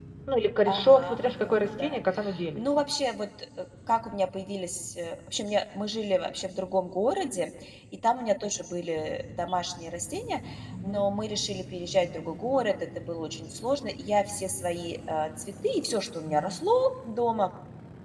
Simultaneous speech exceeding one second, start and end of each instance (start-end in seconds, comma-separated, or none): 0.7-2.0